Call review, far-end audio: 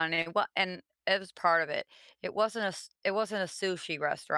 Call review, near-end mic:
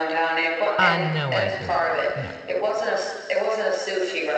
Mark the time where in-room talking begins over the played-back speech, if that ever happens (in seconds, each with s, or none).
0.8 s